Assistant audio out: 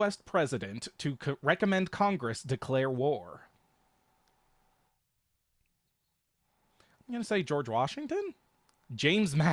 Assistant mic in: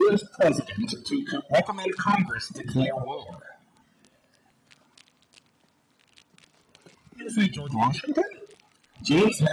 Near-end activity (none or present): none